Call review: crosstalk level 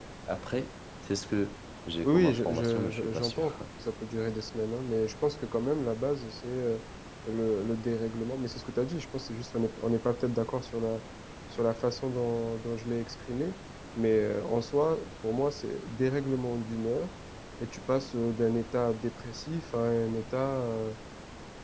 present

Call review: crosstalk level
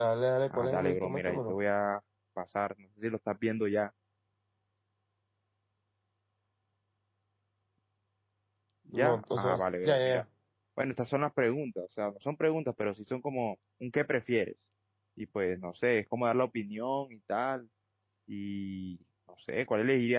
present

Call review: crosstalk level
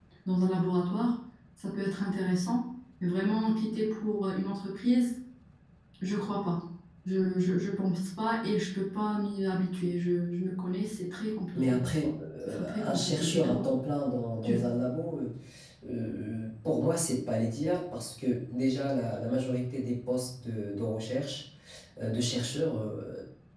present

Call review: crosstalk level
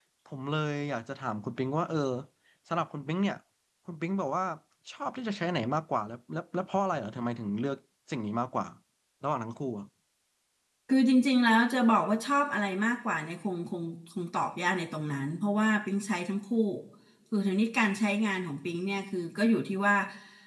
none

